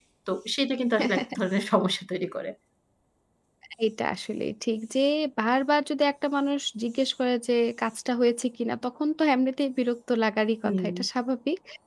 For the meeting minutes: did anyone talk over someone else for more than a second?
No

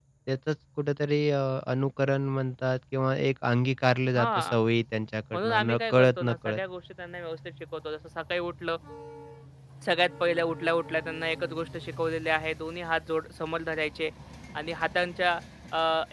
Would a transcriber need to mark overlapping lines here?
Yes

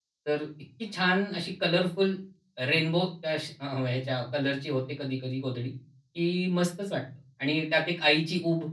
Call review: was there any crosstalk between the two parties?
No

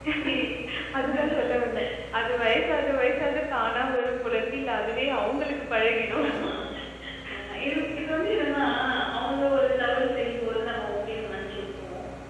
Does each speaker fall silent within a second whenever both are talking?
Yes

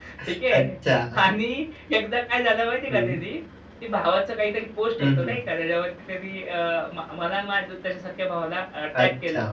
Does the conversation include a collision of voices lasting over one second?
No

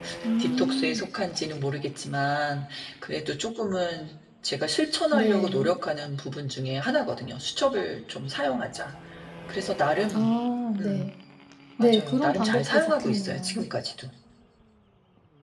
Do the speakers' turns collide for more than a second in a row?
Yes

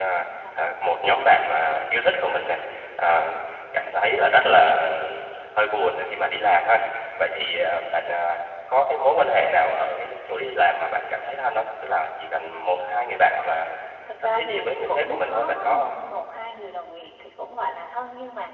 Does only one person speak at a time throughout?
No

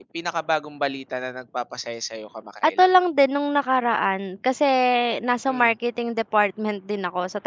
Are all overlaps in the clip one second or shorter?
Yes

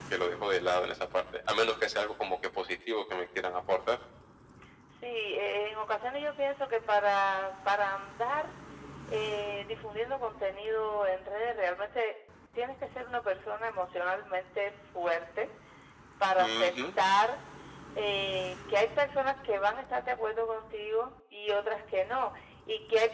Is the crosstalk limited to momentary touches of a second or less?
Yes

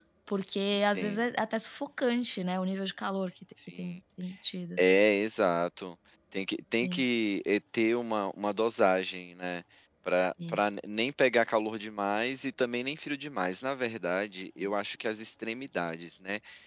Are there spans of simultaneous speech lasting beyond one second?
No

